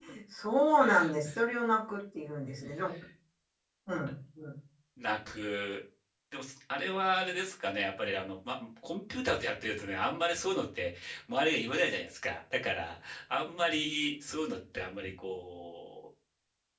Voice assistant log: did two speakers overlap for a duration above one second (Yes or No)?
No